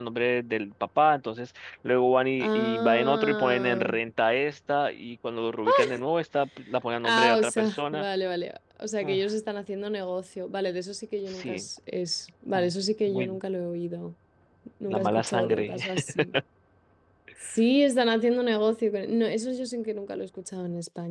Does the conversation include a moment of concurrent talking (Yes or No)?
Yes